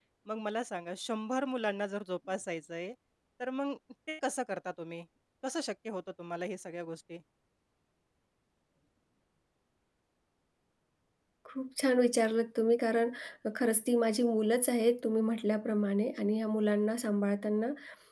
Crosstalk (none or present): none